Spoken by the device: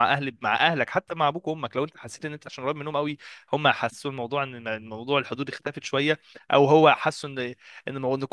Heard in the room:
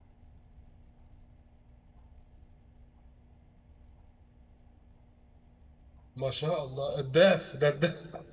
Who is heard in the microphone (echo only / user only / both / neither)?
user only